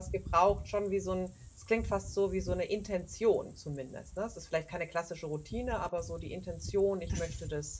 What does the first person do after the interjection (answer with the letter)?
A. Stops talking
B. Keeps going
A